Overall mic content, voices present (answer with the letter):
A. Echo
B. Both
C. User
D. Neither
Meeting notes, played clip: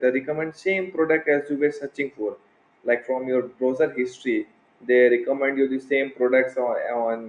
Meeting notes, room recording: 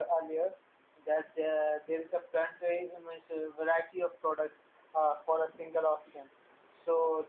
C